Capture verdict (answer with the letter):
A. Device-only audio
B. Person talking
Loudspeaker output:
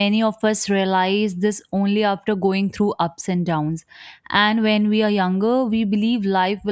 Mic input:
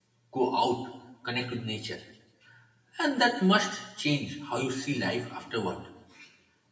B